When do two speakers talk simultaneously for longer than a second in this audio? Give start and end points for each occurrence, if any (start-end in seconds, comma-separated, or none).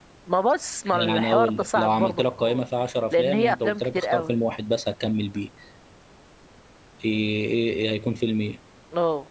0.9-2.6, 3.1-4.3